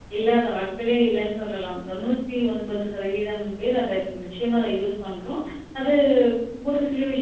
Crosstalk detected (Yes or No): No